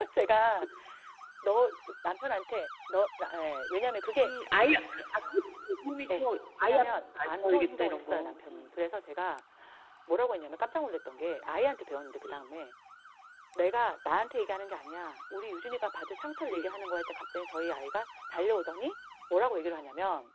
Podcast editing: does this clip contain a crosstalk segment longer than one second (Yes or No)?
Yes